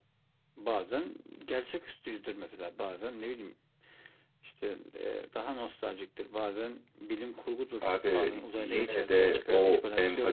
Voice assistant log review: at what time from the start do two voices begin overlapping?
7.8 s

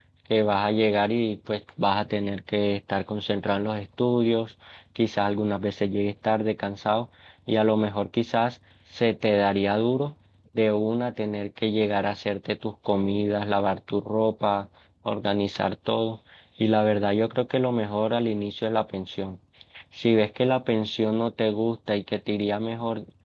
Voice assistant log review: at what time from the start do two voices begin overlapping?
none

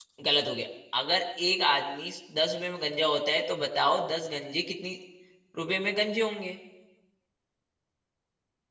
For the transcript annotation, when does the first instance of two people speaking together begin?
none

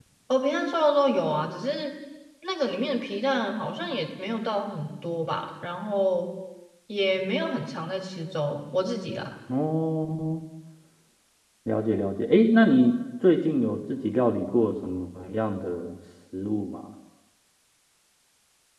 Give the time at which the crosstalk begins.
none

